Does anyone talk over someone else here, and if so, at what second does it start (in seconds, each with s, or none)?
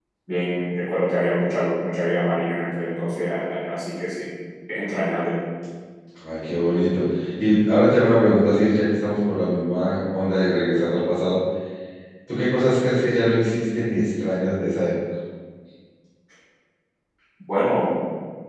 none